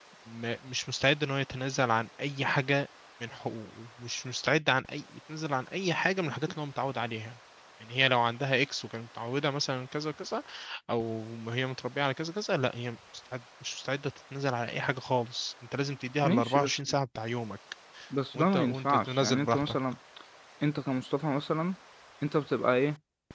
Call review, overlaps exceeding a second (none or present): present